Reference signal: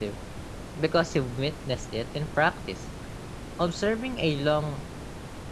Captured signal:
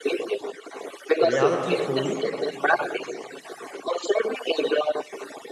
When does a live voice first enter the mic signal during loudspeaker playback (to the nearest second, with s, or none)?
1 s